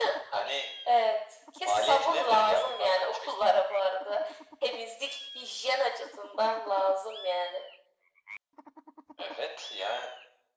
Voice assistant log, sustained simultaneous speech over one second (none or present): present